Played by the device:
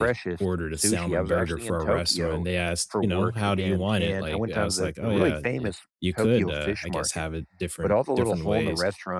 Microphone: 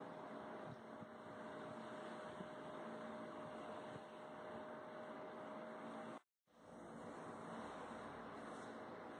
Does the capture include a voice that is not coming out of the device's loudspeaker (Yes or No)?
No